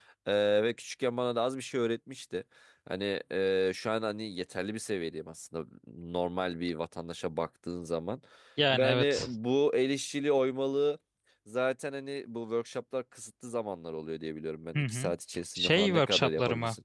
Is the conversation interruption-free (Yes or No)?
No